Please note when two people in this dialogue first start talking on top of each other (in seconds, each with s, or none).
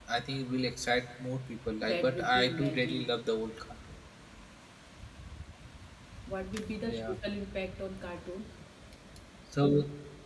1.8 s